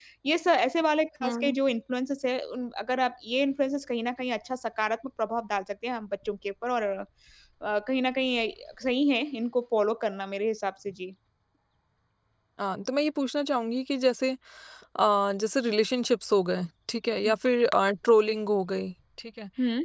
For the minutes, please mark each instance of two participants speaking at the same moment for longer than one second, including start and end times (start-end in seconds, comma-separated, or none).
none